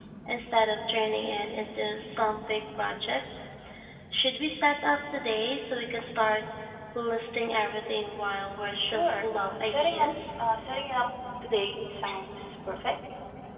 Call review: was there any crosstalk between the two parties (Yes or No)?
Yes